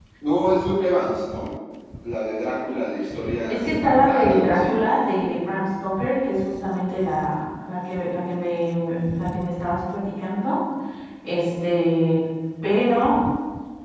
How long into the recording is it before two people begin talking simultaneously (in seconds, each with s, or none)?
3.5 s